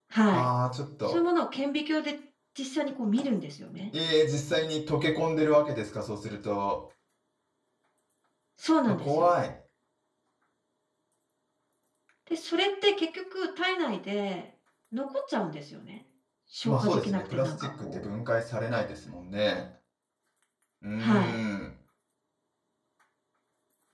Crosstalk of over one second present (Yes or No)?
Yes